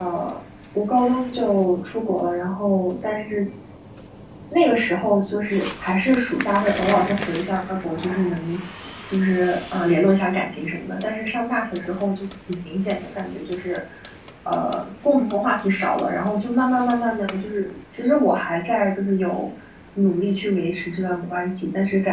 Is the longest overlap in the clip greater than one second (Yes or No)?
No